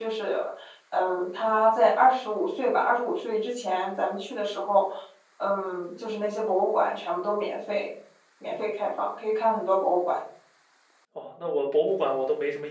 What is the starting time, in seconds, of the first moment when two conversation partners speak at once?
none

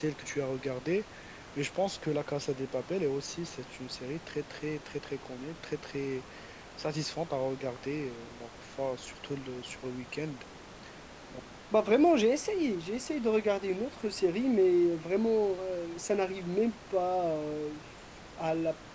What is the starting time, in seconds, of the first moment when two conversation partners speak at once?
none

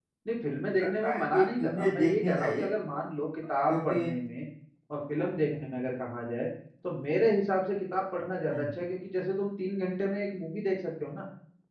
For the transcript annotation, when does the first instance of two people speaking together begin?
0.7 s

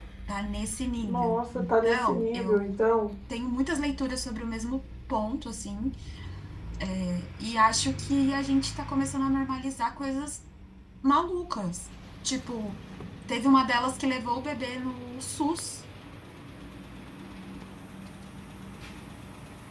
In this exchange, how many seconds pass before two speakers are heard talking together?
1.0 s

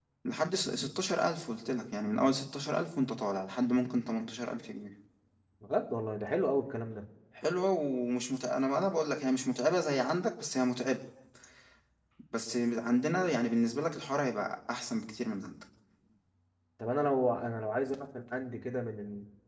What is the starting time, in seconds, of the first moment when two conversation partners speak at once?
none

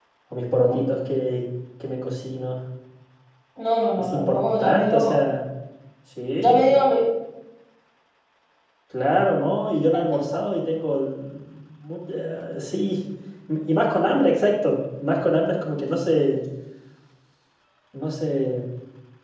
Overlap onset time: 4.0 s

